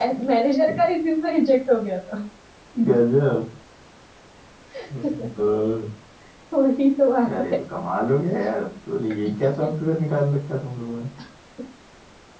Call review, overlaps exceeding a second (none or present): none